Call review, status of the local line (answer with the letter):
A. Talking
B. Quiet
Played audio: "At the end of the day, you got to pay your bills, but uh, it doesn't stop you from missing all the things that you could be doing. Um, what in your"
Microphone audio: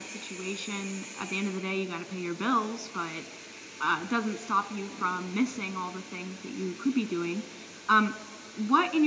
B